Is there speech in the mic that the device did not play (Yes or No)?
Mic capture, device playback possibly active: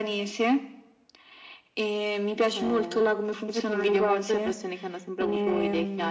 No